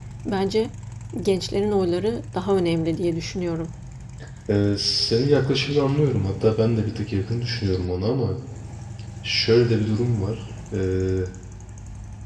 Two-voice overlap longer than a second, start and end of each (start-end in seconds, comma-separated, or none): none